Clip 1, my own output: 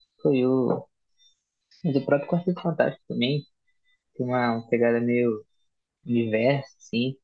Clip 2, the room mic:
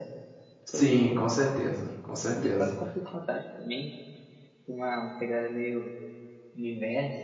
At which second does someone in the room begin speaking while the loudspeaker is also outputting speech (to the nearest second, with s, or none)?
1 s